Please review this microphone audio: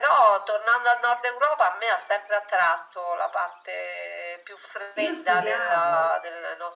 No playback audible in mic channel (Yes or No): No